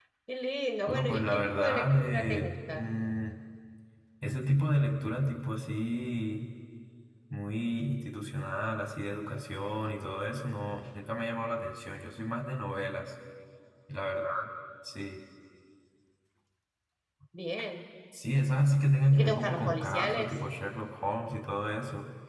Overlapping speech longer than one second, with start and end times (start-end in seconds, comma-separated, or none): 0.9-2.8, 19.1-20.4